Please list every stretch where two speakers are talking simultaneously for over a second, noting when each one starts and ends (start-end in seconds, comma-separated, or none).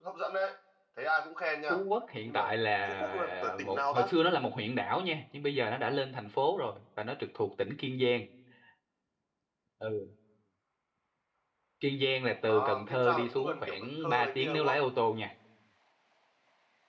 2.9-4.1, 12.5-14.8